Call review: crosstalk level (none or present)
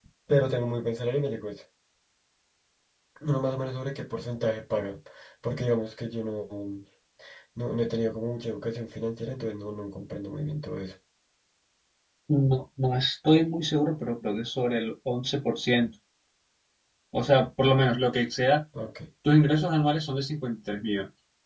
none